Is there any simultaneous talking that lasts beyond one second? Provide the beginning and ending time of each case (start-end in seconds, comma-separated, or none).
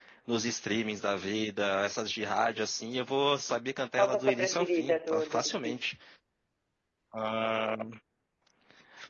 4.0-5.8